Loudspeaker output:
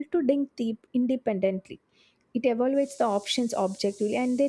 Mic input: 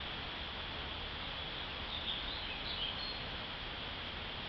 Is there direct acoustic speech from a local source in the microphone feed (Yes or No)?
No